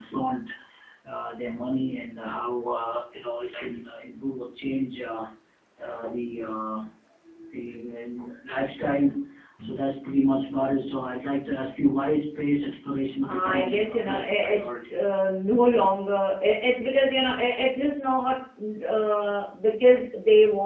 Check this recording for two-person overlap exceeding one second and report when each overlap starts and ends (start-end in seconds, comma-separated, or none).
13.2-15.0